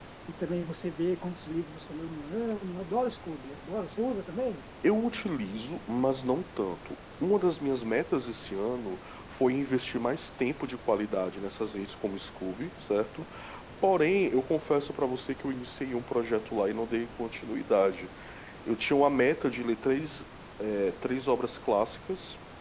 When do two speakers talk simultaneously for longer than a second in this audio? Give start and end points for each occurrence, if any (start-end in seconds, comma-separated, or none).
none